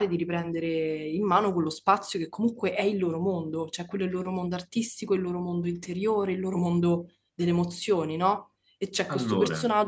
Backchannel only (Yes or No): Yes